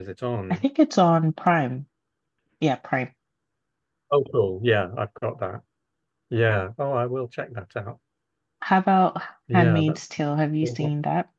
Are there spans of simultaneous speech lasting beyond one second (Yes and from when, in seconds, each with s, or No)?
No